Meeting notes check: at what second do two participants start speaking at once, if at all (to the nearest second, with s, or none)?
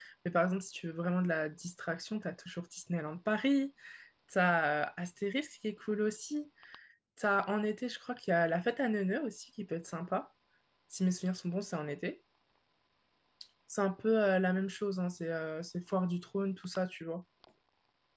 none